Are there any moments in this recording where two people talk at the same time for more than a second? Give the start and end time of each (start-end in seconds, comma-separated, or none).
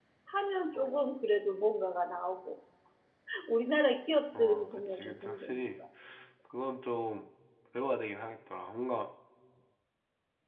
4.4-5.7